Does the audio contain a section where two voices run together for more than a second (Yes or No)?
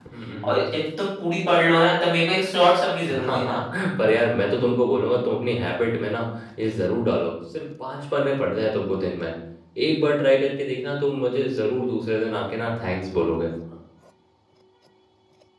No